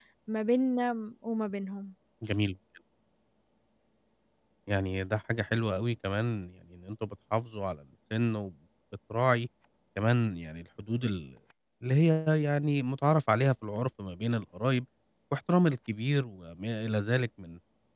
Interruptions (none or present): none